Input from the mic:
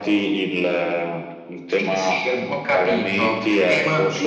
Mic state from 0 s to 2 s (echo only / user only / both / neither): echo only